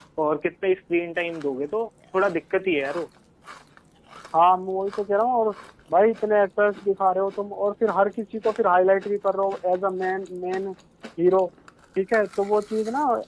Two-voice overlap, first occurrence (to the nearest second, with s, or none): none